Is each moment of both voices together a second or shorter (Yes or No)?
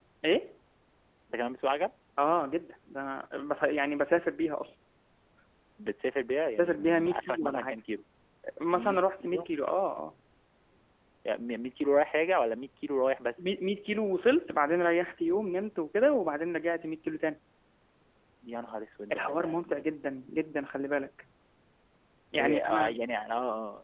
No